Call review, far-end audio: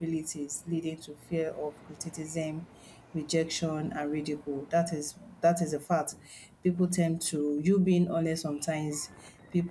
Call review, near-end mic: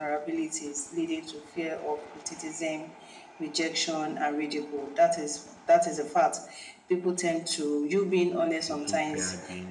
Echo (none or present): present